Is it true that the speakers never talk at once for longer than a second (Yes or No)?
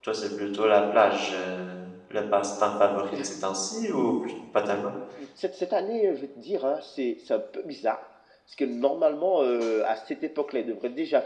Yes